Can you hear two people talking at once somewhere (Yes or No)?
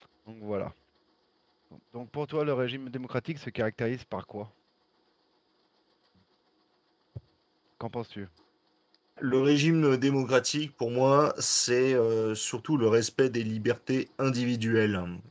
No